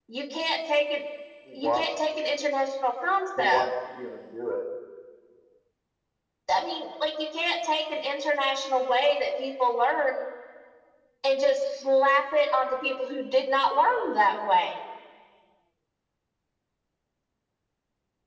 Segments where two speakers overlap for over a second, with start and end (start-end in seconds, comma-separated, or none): none